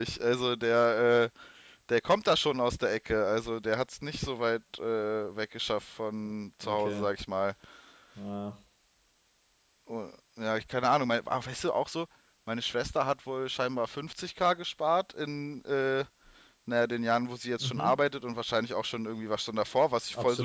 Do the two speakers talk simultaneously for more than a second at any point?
No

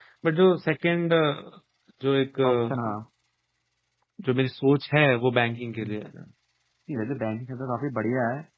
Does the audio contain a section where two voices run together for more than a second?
No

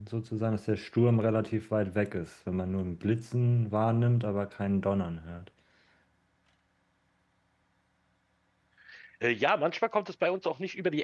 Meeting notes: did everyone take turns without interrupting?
Yes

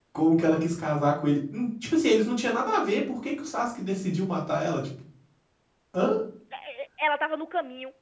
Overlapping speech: No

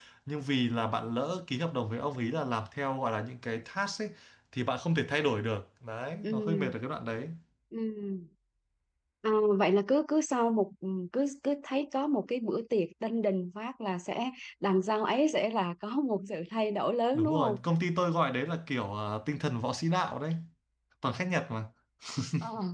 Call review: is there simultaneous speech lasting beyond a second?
No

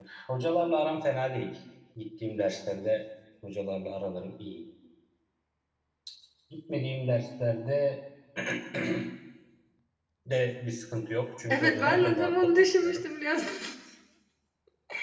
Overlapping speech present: Yes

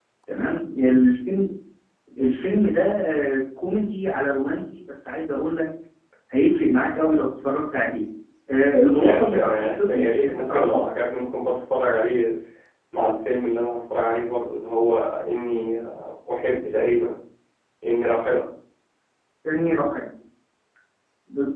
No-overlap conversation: No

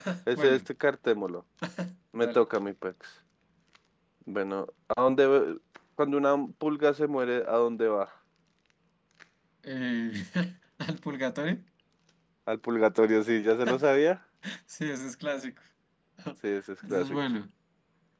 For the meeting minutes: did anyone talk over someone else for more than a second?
No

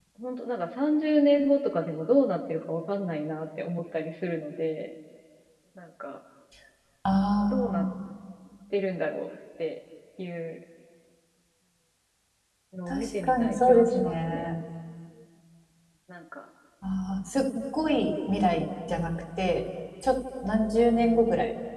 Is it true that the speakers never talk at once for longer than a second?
No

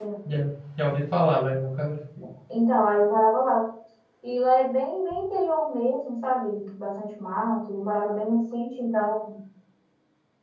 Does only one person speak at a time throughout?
Yes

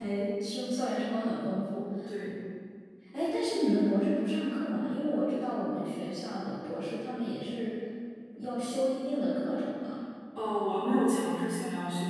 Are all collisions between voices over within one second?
Yes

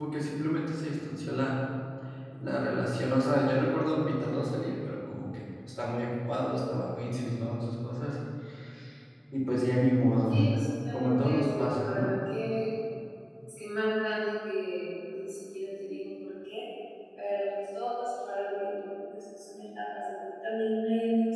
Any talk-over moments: Yes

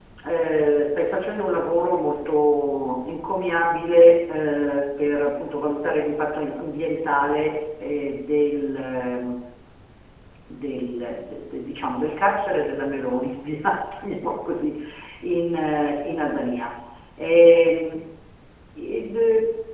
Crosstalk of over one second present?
No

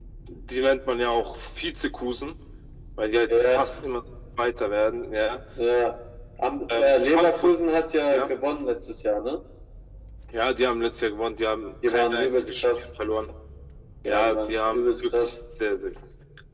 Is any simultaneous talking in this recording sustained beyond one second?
Yes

